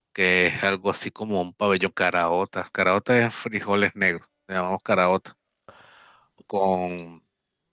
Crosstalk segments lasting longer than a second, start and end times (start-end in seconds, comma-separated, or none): none